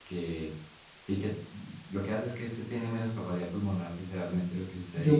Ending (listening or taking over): taking over